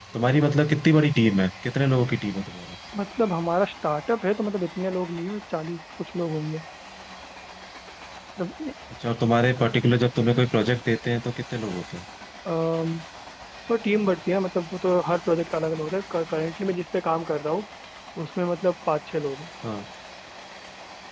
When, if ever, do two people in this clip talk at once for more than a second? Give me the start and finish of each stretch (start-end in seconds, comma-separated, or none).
none